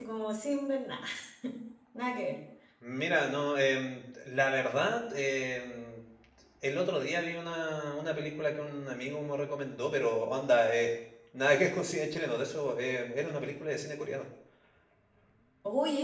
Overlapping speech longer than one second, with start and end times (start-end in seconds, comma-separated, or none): none